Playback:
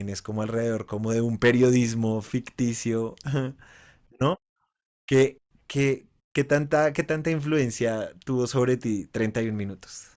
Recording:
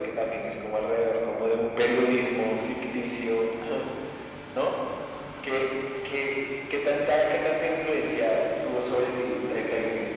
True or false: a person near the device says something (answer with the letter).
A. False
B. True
A